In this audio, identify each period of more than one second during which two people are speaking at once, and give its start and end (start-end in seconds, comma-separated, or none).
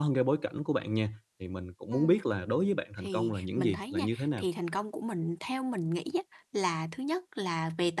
3.0-4.4